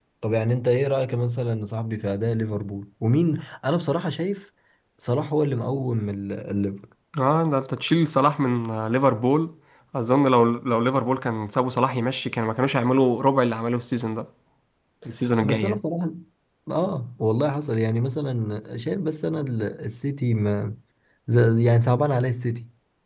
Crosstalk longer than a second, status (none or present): none